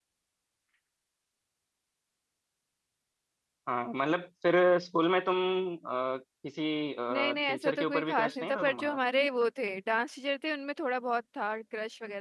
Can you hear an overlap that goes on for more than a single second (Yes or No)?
Yes